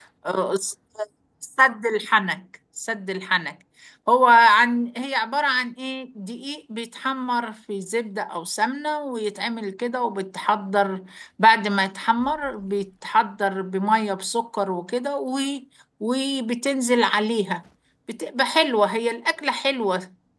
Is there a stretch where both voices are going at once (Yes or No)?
No